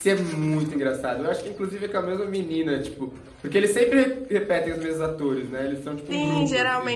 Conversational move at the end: taking over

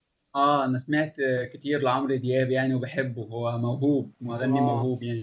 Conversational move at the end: taking over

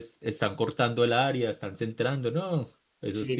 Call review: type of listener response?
taking over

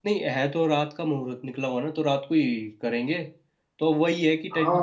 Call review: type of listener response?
listening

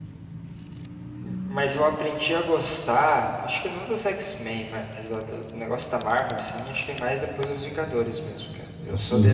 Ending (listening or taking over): listening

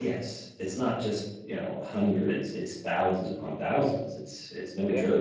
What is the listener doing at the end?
listening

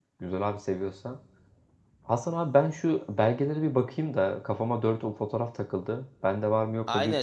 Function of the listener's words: taking over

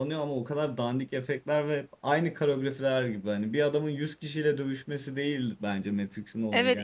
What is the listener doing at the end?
taking over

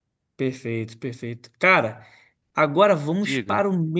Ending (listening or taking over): listening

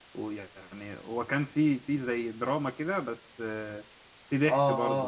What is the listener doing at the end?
taking over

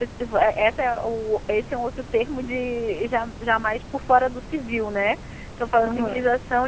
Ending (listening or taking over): listening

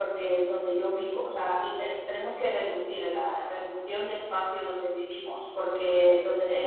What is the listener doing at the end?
listening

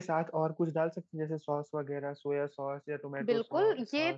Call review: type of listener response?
taking over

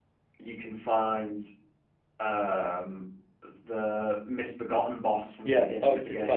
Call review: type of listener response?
taking over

